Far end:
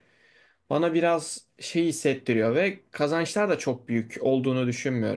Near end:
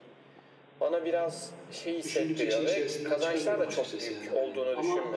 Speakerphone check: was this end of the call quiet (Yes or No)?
No